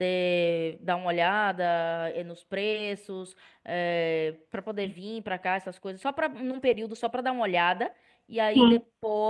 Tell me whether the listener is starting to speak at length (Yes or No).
No